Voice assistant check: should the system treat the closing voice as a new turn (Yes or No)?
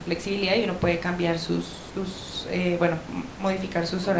Yes